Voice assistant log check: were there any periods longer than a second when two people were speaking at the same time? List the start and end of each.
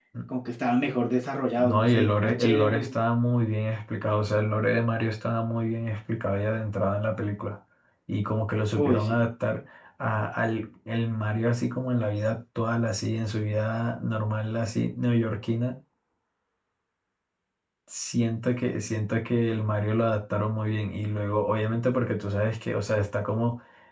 1.6-2.9

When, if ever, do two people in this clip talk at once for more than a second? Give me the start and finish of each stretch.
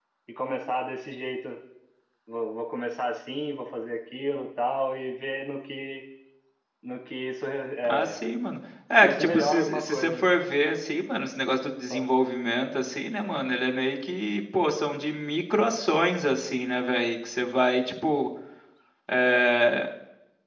9.0-10.3

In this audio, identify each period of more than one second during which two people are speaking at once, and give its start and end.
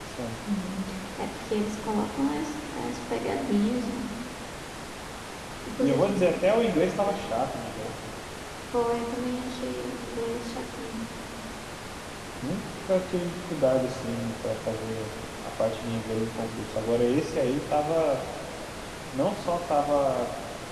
none

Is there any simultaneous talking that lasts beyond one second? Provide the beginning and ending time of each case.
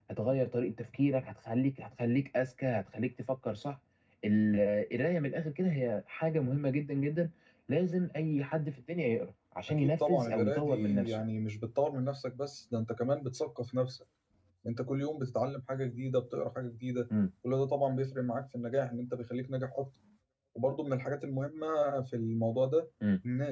9.8-11.2

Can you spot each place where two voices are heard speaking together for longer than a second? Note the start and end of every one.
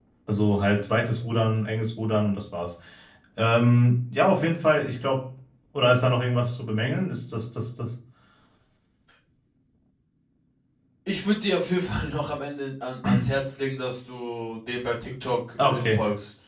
none

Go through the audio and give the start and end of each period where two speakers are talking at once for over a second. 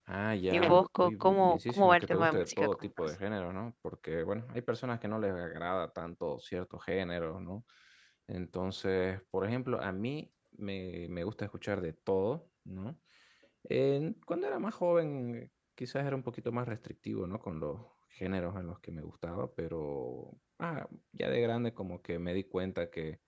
0.5-3.1

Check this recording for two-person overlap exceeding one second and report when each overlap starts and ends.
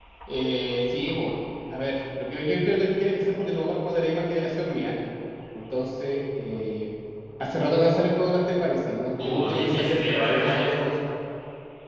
9.2-10.7

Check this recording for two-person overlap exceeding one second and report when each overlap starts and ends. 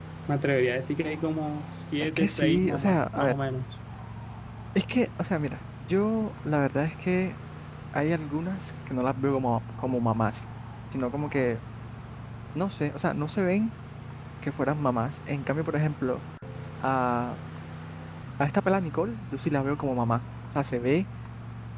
2.0-3.3

